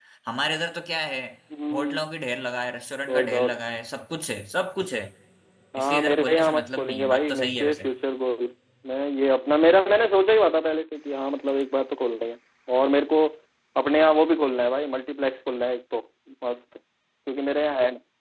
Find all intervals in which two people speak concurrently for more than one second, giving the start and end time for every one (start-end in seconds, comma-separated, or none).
5.8-7.9